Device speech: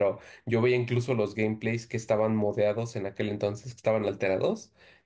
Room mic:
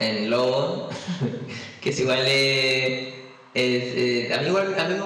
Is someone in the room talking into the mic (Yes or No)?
Yes